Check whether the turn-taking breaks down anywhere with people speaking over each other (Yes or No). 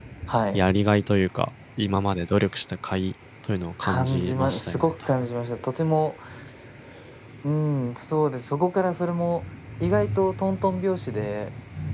Yes